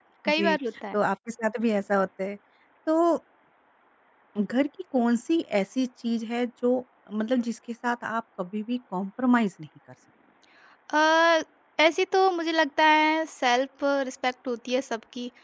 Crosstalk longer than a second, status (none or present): none